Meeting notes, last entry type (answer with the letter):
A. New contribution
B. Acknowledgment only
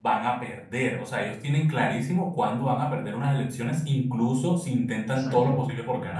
B